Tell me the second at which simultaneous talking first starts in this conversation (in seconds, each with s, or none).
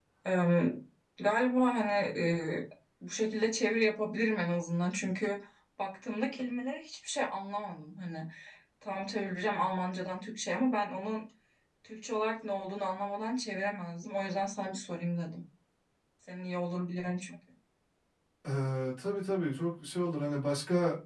none